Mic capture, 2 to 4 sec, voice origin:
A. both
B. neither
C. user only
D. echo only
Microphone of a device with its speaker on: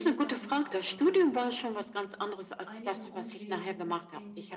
A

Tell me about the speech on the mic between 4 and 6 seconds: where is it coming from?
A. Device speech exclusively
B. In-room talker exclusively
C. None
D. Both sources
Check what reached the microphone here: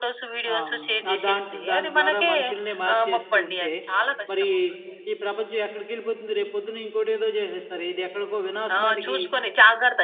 D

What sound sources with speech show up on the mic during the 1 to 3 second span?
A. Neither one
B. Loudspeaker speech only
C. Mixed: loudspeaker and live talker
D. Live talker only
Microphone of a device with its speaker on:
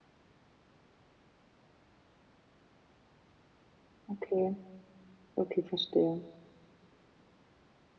A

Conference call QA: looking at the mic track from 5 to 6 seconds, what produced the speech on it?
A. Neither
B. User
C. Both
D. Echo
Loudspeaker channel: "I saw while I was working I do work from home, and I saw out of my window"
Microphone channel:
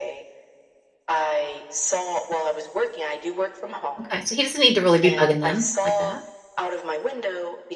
C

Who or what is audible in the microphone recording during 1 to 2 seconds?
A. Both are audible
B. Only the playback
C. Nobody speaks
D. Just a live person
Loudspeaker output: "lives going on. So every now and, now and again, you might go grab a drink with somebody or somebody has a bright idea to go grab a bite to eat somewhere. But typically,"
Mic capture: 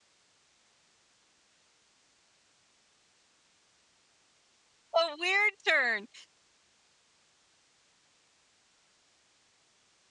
C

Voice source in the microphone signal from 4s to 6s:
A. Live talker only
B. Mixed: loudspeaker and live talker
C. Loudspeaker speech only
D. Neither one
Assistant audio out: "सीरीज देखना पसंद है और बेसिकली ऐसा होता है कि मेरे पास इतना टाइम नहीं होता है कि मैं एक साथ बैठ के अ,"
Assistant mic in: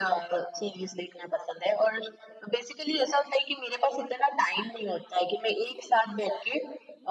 C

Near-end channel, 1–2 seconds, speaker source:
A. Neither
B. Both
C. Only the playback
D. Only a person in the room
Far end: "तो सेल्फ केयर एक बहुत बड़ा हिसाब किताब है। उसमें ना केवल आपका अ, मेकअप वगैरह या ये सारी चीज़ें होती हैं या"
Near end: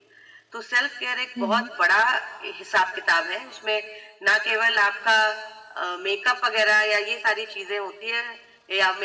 B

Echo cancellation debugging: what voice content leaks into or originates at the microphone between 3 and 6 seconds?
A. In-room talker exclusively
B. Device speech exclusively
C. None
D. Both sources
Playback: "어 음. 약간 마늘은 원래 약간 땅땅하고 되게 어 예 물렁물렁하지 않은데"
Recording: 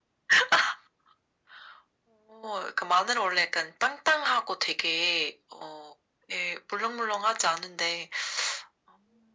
B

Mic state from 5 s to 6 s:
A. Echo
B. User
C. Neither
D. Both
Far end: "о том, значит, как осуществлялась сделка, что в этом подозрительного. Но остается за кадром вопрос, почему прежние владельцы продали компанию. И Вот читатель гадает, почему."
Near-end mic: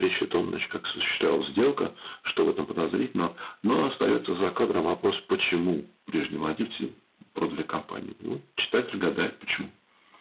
A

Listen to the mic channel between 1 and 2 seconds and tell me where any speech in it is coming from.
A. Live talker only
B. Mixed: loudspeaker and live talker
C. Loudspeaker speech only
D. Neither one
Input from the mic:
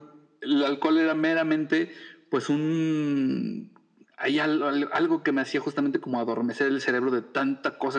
C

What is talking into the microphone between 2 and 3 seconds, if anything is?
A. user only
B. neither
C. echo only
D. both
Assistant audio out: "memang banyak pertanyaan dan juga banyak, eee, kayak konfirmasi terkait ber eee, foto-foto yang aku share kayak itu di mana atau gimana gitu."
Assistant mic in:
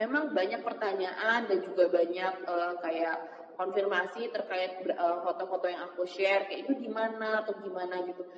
C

